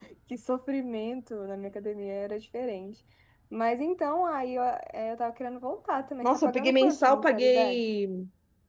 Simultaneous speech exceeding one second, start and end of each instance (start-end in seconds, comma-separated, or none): 6.2-7.8